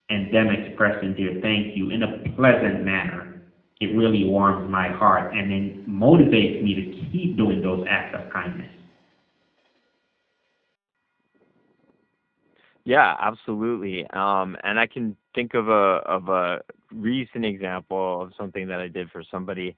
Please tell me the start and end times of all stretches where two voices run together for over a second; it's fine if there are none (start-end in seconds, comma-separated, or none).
none